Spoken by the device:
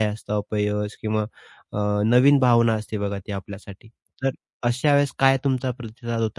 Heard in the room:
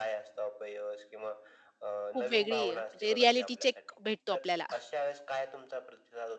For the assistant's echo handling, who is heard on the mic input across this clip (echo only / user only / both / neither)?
both